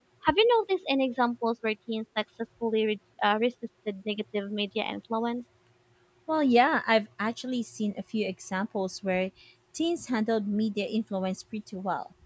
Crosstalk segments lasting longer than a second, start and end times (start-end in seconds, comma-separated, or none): none